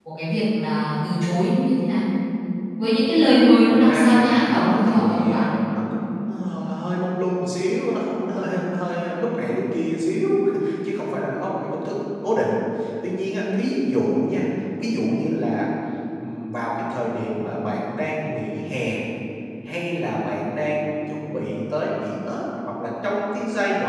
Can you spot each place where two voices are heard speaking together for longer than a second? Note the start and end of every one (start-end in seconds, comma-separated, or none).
3.7-5.5